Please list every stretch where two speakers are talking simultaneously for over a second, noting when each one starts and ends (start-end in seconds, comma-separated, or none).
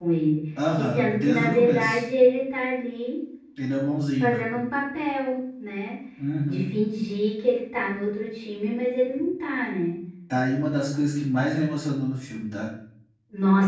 0.8-2.0